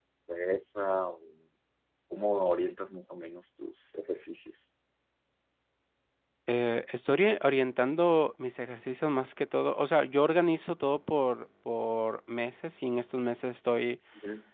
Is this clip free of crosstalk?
Yes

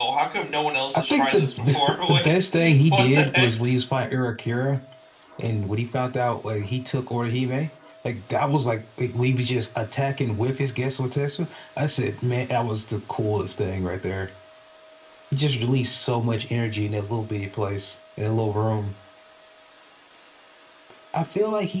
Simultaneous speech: Yes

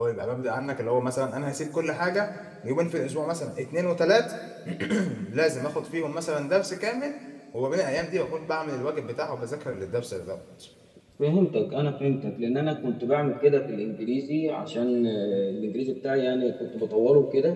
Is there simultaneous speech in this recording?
No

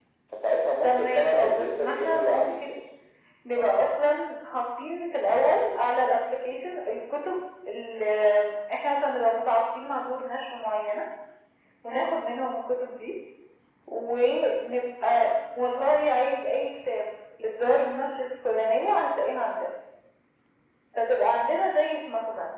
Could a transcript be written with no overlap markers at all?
No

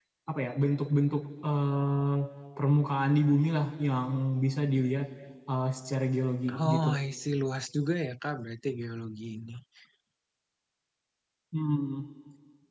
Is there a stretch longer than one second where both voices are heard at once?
No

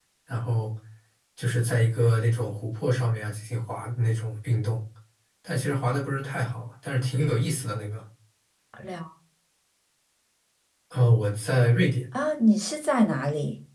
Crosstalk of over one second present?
No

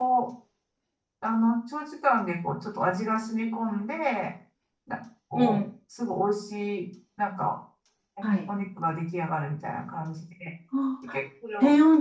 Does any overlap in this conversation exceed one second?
No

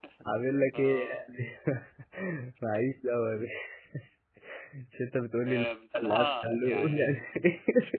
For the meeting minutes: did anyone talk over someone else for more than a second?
Yes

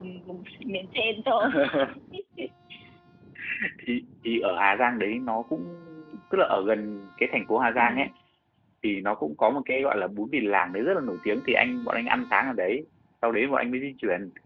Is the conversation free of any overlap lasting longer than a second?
Yes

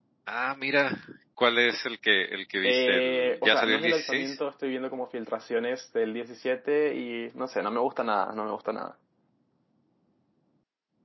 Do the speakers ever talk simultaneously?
Yes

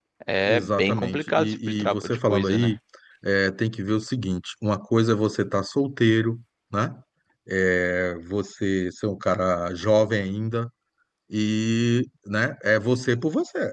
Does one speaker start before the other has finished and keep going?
Yes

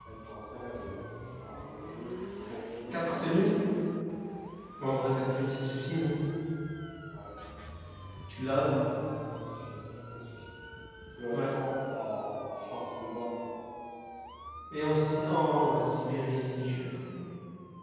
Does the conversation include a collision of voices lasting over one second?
No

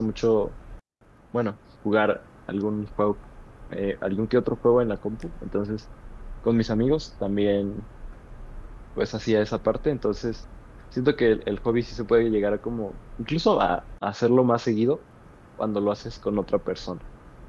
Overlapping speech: No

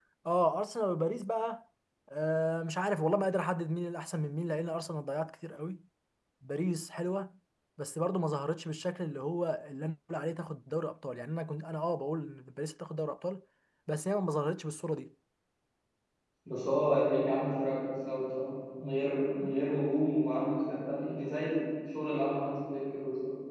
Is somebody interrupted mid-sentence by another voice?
No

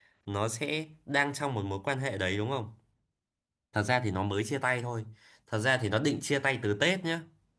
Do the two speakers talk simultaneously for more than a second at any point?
No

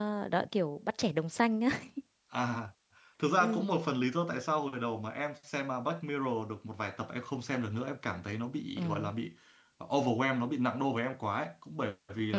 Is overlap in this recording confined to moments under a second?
Yes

